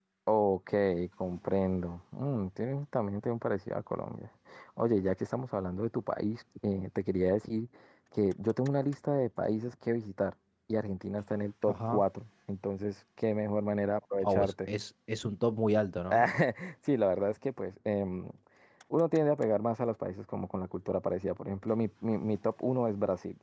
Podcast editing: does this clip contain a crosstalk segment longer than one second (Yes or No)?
No